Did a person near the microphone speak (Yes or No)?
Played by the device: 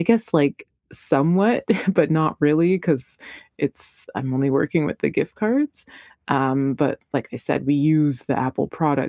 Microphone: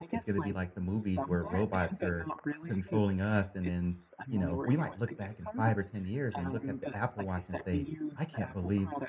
Yes